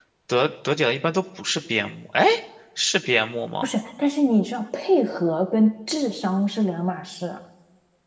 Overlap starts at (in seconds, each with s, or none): none